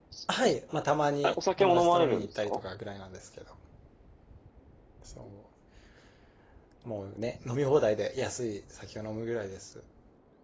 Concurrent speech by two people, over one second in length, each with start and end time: 1.2-2.6

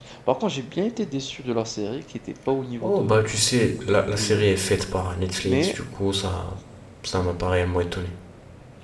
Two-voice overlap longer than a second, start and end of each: none

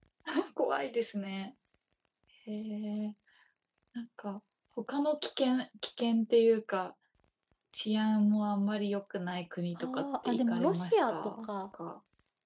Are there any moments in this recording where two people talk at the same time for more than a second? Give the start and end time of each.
9.8-11.3

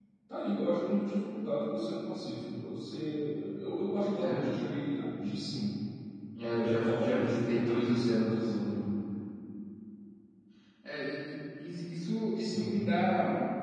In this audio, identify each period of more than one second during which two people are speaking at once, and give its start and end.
6.4-8.6

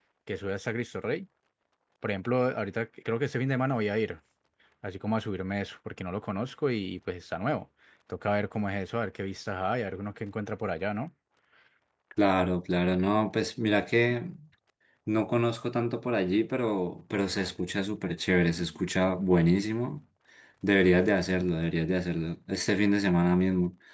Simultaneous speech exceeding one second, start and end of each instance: none

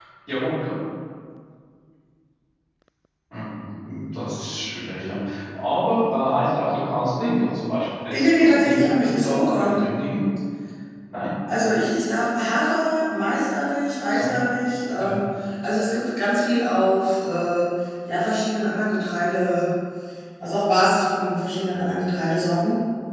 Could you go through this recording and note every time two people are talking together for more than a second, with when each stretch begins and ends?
8.1-9.8

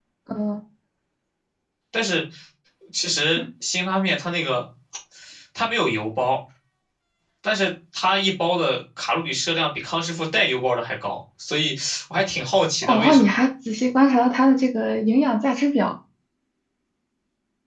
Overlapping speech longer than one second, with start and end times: none

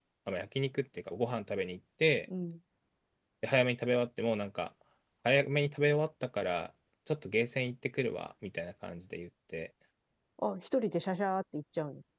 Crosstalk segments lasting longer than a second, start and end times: none

